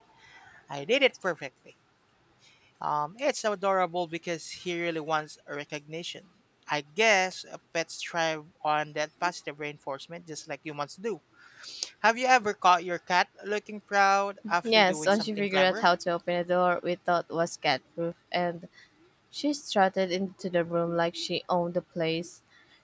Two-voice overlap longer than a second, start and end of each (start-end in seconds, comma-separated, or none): 14.6-15.8